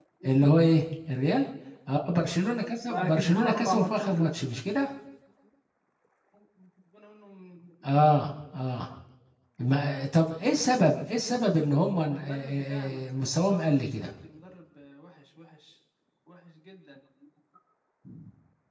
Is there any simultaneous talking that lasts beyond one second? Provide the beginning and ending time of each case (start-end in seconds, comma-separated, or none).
2.9-4.5, 12.1-14.1